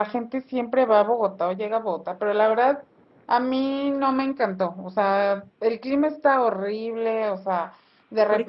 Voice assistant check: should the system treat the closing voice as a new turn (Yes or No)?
No